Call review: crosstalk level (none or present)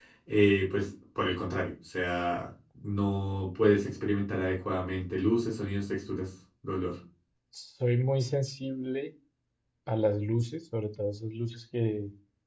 none